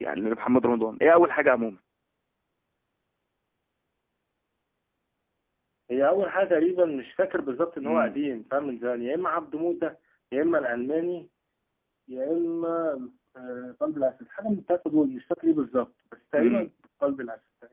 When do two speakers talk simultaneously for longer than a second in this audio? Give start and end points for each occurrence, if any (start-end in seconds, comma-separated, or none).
none